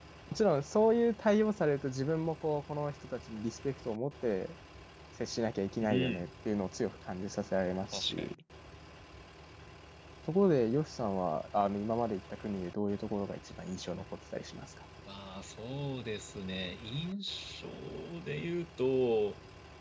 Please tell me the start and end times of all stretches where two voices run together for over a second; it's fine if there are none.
none

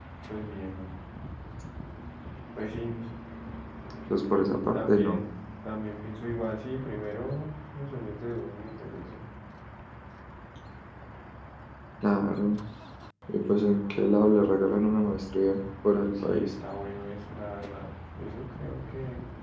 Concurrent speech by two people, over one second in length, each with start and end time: none

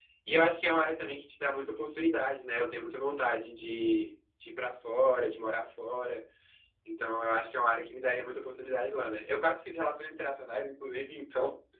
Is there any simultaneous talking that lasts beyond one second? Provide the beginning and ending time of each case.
none

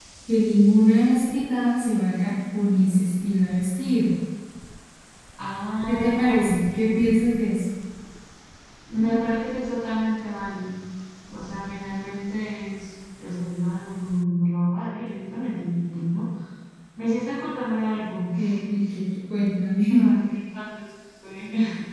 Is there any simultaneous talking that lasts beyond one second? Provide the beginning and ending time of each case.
5.9-7.2

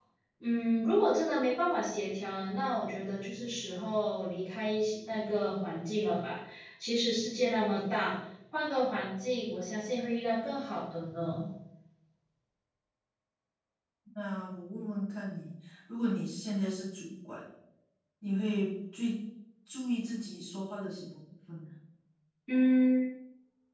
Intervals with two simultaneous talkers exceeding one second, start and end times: none

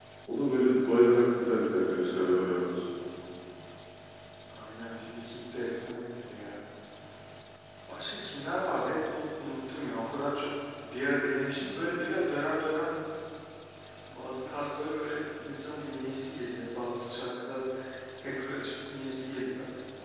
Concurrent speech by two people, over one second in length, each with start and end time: none

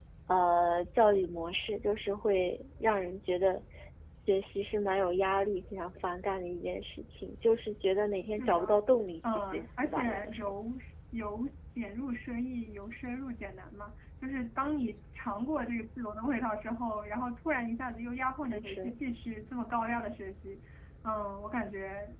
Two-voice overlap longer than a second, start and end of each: 9.2-10.5

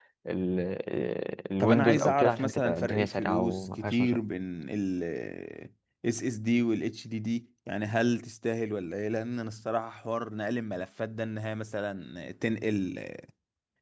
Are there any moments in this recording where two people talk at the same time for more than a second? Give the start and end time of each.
1.6-4.2

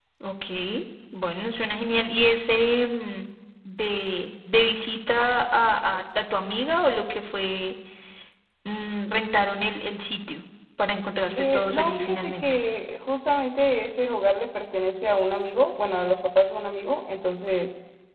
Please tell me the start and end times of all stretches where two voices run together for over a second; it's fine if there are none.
11.4-12.6

